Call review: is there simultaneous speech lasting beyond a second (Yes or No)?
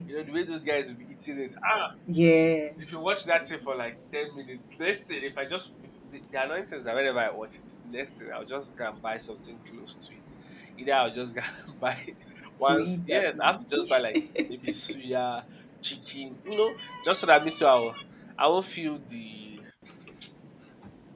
Yes